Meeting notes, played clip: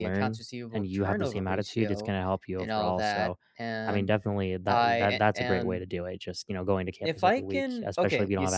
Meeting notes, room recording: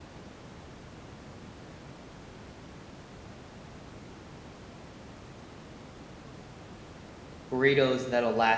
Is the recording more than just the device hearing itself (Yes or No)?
Yes